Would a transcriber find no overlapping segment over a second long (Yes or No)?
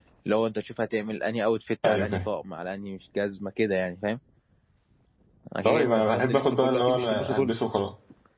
No